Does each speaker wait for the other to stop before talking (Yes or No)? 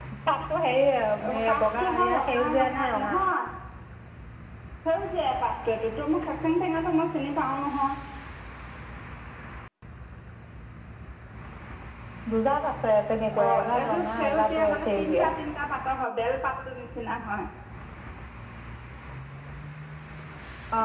No